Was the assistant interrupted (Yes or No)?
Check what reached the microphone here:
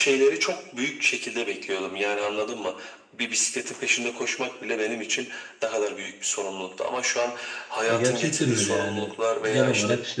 Yes